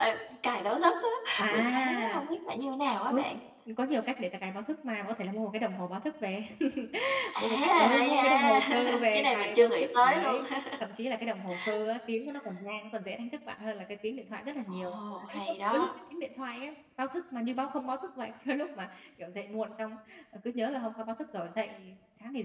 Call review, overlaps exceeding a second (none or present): present